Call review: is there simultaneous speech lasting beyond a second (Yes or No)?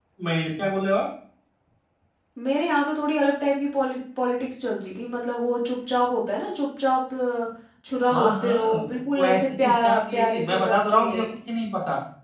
Yes